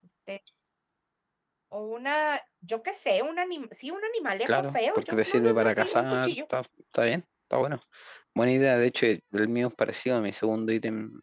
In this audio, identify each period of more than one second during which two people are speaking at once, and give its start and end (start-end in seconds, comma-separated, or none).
4.5-6.3